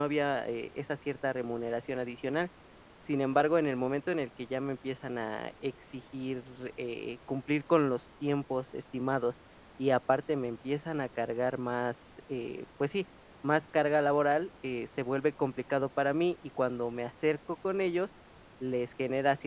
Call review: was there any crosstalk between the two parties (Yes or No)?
No